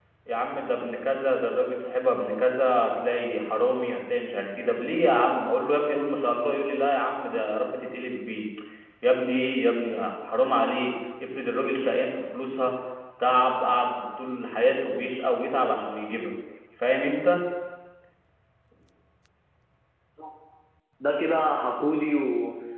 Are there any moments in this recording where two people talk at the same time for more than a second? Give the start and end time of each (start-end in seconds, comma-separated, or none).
none